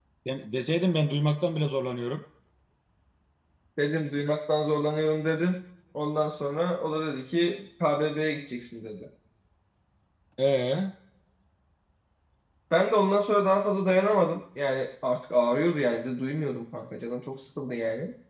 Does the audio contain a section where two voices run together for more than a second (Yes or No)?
No